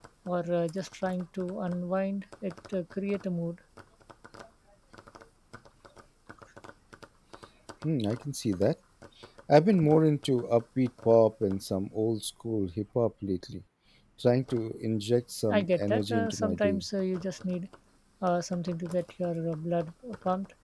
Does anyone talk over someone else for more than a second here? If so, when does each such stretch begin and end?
15.5-16.8

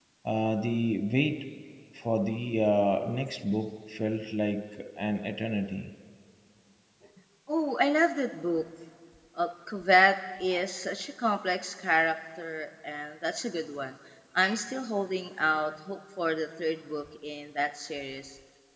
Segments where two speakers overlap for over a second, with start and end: none

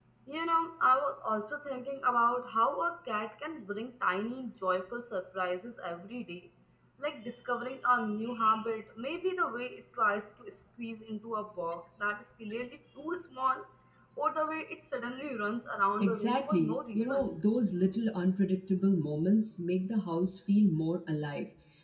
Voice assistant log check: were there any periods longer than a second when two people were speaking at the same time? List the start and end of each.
16.0-17.3

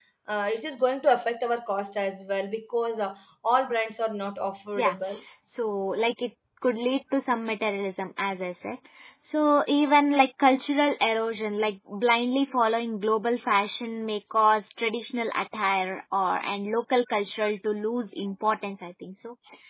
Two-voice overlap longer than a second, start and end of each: none

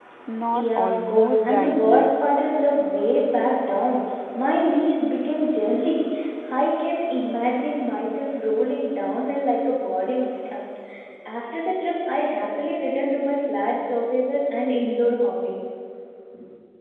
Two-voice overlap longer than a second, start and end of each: 0.5-2.2

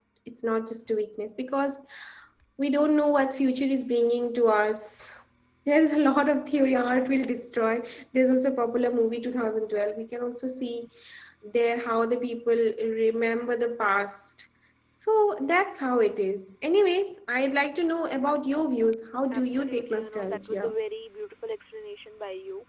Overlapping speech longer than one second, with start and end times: 19.3-20.7

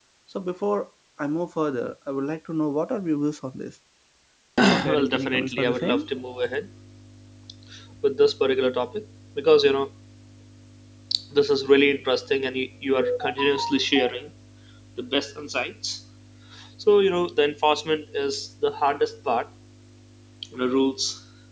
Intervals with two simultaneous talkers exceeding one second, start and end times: 4.6-6.0

